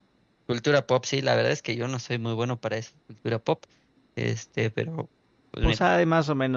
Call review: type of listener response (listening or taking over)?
taking over